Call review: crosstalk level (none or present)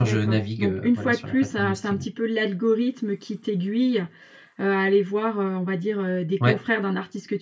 present